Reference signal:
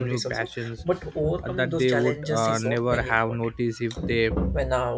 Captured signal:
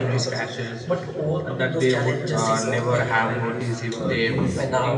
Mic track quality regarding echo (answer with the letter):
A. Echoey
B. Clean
A